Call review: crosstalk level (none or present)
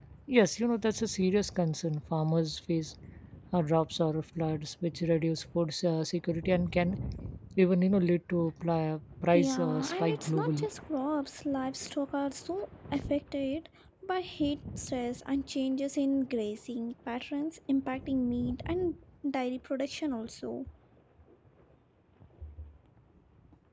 present